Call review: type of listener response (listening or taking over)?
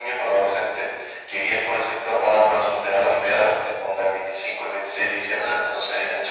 listening